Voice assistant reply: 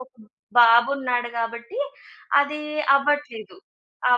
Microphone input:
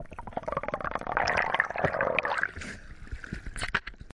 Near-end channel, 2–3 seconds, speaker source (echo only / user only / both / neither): neither